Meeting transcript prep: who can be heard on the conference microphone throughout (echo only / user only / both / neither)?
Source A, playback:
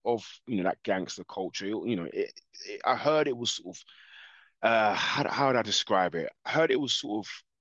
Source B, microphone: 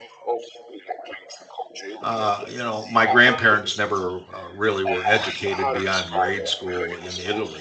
both